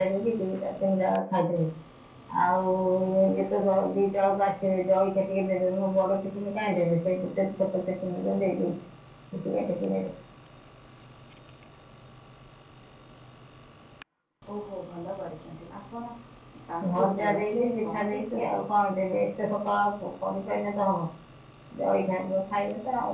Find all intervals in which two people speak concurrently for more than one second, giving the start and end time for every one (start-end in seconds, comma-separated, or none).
16.8-18.6